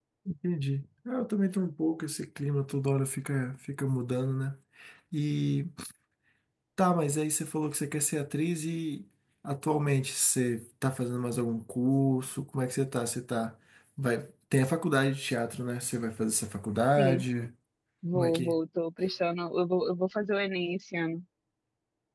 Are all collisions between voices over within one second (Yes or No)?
Yes